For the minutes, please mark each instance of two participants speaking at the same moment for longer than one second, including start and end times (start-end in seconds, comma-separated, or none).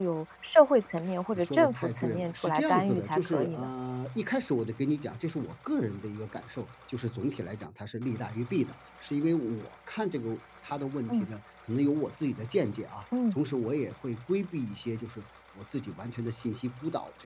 1.4-3.7